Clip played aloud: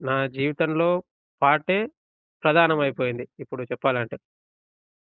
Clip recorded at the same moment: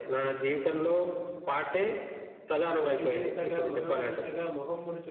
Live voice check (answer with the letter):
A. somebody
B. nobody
A